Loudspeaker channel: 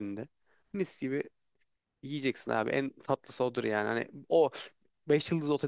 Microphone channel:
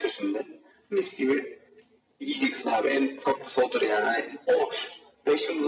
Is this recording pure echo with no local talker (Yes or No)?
Yes